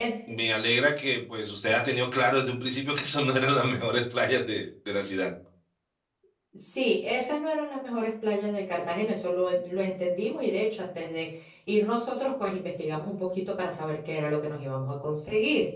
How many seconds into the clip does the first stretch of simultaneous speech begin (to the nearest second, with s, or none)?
none